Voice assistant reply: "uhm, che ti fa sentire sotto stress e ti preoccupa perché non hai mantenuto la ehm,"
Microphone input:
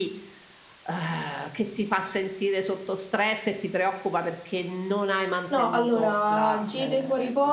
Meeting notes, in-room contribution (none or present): present